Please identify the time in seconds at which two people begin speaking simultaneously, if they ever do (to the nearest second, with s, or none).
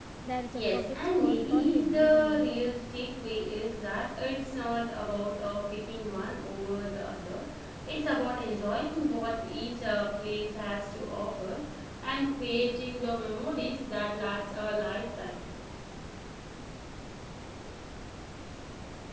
1 s